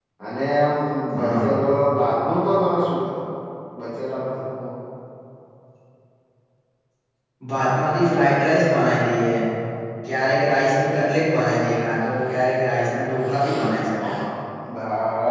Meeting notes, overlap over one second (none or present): none